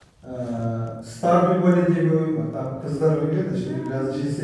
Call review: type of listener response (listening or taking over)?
listening